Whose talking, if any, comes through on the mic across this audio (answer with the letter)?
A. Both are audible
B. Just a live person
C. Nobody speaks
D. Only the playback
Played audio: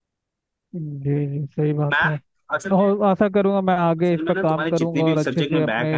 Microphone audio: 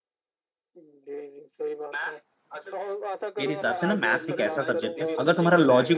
A